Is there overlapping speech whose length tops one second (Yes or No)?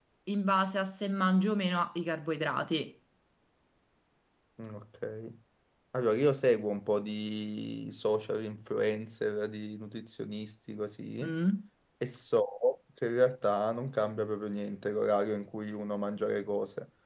No